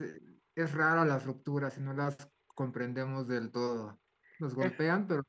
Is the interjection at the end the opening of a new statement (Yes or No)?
No